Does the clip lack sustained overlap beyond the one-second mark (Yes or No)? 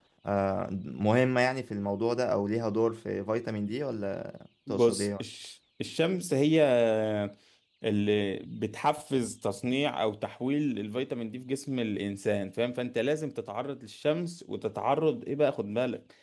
Yes